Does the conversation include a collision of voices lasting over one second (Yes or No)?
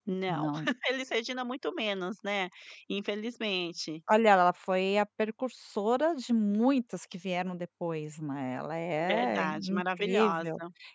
Yes